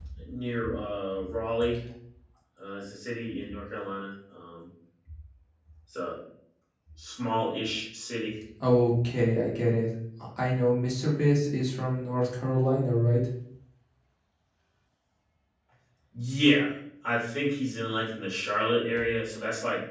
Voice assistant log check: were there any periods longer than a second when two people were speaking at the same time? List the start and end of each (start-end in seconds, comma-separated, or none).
none